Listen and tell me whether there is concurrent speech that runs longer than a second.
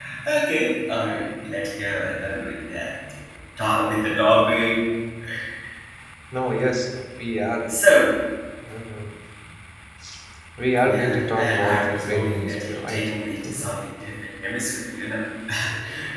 Yes, from 10.8 s

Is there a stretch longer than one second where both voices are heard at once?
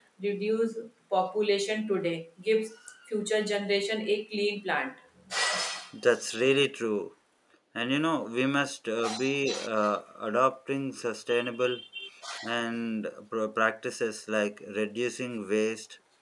No

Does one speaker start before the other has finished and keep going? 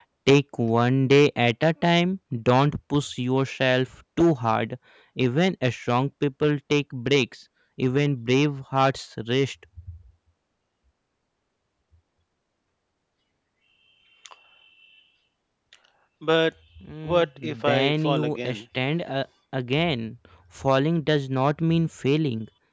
Yes, from 17.1 s

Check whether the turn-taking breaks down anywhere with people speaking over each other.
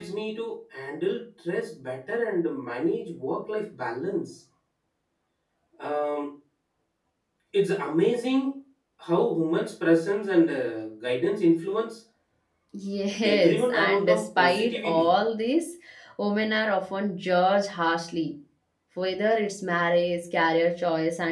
Yes, from 13.2 s

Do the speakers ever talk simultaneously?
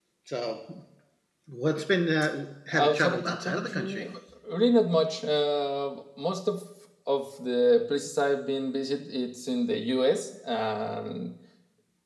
Yes, from 2.7 s

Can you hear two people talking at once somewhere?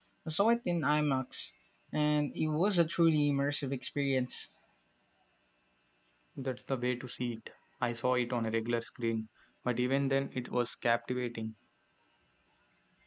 No

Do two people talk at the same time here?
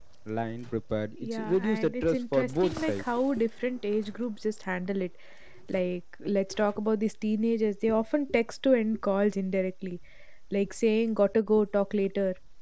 Yes, from 1.2 s

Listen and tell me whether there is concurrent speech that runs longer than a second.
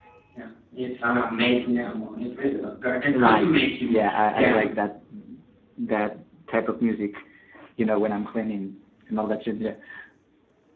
Yes, from 3.1 s

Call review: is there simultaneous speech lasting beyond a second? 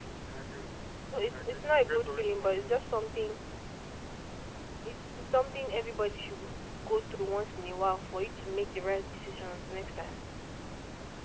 Yes, from 1.3 s

